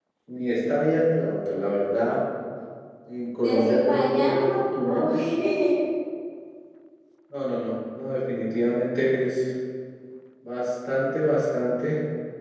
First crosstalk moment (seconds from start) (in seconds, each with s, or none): 3.4 s